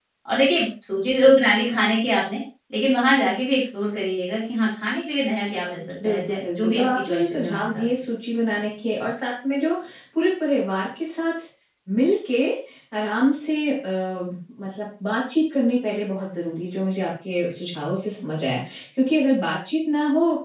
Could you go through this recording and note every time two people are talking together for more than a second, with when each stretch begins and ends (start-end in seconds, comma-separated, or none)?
6.0-7.8